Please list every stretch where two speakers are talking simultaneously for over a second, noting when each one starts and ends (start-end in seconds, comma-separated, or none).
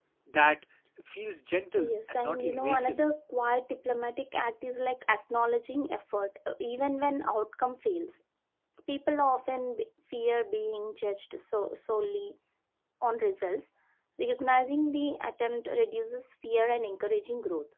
1.8-3.0